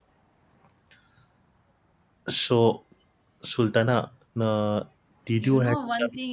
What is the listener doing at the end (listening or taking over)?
taking over